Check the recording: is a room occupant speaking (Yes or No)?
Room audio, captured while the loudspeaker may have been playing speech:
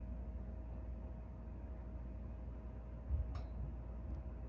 No